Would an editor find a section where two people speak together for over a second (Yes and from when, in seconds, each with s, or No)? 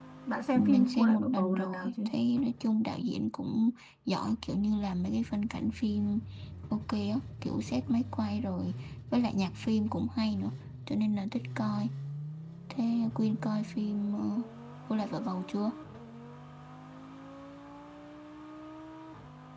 Yes, from 0.6 s